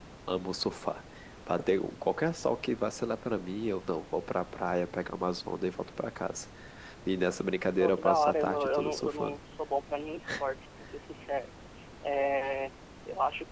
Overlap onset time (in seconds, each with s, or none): 7.8 s